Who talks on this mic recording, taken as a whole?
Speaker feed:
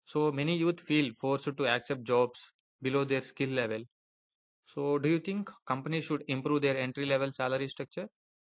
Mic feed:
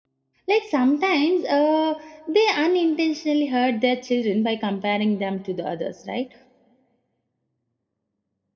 user only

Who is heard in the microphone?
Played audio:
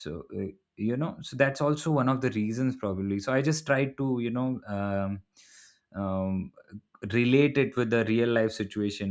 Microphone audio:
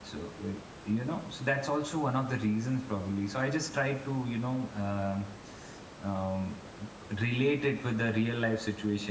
echo only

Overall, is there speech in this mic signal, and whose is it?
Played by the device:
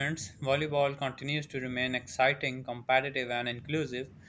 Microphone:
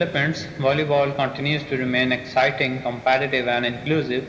echo only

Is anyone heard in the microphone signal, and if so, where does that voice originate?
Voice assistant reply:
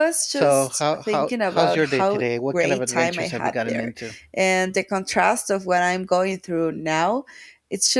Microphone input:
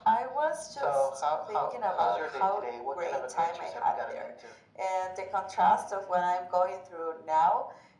echo only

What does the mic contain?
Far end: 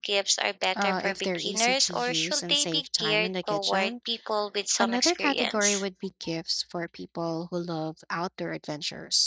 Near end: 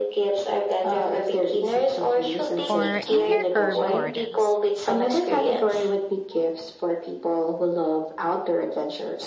both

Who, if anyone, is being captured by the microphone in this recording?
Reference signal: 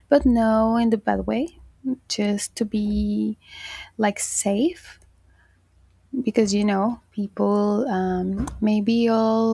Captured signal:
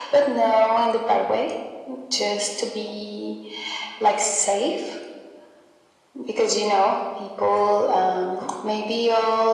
echo only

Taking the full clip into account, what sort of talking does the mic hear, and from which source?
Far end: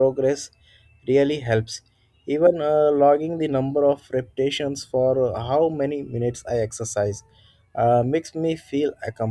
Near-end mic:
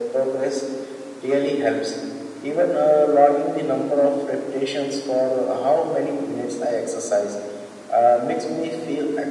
echo only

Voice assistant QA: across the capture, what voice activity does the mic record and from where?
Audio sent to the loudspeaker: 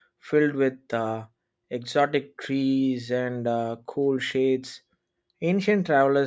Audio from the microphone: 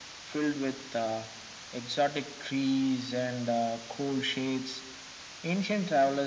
echo only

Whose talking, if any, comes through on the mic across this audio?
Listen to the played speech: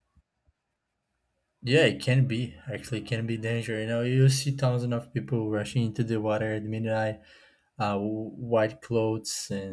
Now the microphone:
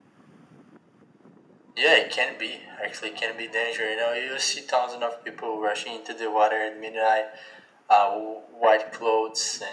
echo only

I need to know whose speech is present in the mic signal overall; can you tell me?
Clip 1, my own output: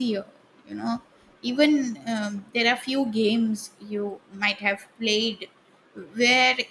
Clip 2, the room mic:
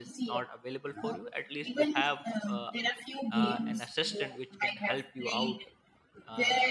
both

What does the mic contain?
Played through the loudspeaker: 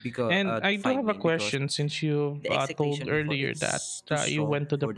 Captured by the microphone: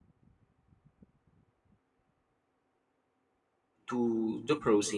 user only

